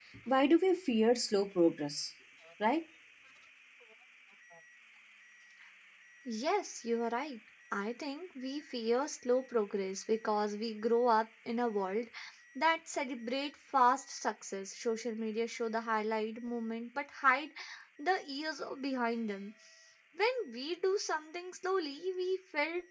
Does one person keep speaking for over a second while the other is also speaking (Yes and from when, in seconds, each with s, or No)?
No